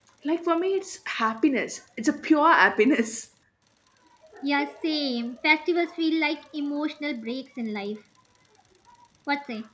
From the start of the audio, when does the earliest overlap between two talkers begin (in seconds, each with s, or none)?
none